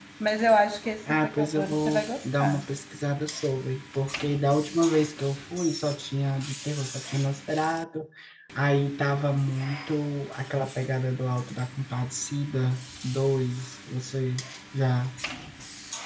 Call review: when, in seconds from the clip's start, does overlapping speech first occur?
1.1 s

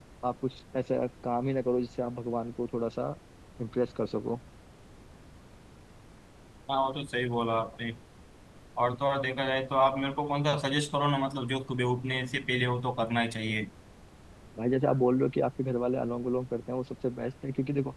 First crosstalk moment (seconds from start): none

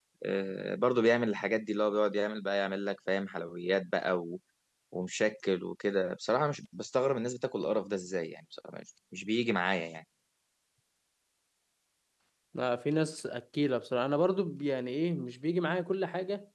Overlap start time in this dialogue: none

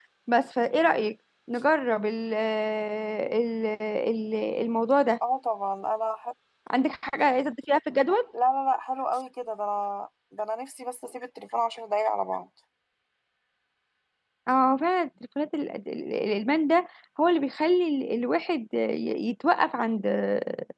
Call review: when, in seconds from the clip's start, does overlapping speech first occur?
none

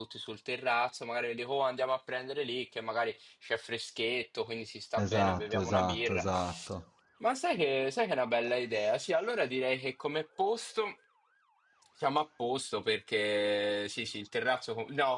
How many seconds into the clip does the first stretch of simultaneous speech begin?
5.0 s

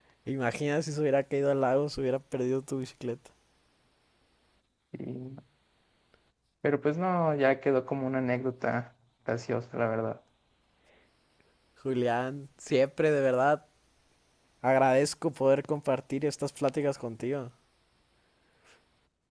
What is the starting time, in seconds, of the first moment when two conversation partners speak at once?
none

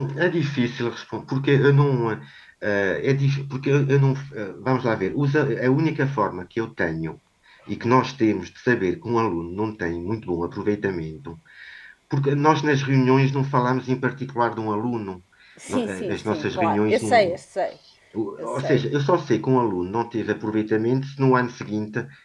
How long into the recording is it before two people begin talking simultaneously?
15.7 s

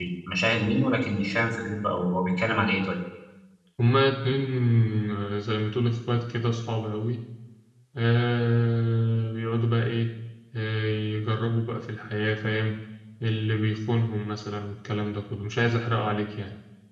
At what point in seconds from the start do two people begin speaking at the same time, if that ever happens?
none

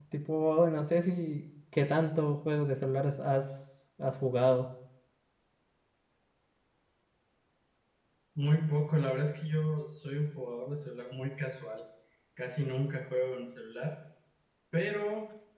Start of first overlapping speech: none

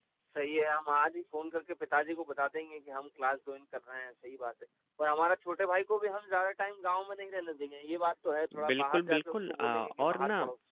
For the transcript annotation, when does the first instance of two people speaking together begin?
8.5 s

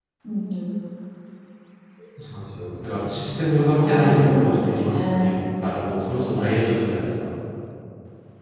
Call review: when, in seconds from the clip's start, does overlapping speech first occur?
3.8 s

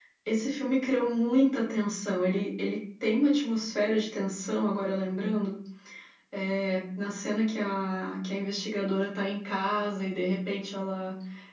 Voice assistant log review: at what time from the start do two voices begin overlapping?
none

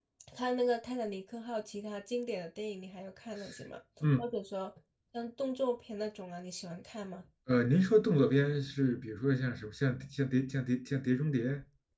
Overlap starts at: none

